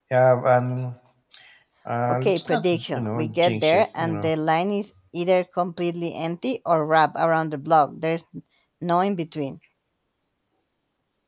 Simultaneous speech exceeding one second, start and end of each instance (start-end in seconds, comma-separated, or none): 2.1-4.3